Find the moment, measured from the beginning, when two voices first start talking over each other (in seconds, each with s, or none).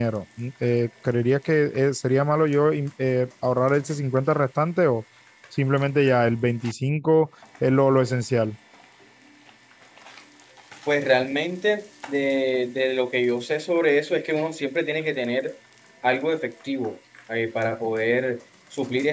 none